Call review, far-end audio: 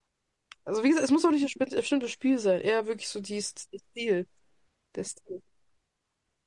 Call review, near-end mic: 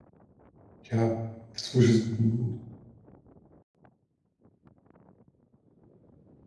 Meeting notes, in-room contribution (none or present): present